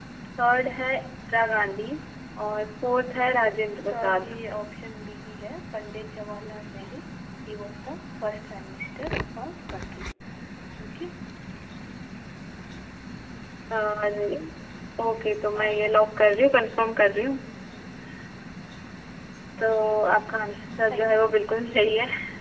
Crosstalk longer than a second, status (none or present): present